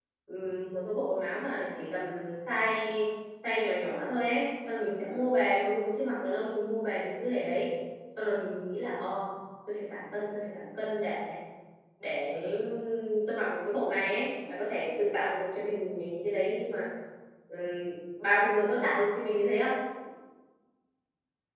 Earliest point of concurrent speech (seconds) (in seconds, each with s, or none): none